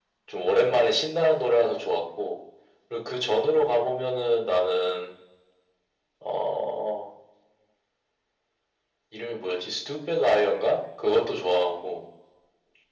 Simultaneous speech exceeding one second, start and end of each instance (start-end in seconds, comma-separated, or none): none